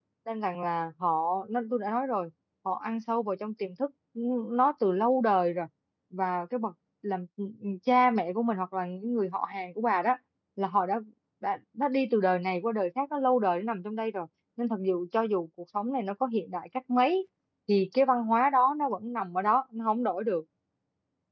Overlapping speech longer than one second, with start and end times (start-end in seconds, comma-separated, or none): none